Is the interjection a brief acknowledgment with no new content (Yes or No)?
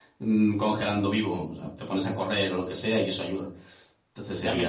No